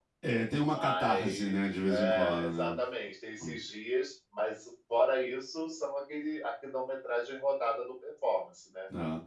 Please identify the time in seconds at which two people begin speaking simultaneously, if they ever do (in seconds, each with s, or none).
0.6 s